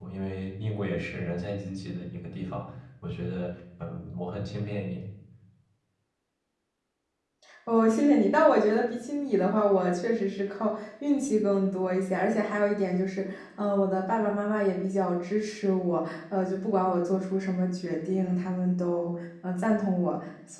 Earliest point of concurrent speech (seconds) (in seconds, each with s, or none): none